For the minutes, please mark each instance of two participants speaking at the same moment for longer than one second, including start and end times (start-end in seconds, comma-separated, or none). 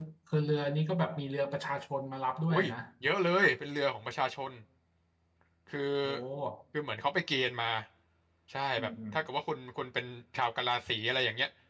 none